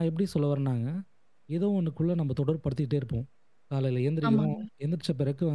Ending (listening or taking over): listening